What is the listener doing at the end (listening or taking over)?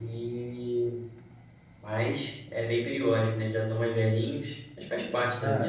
taking over